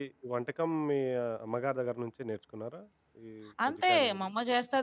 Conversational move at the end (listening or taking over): taking over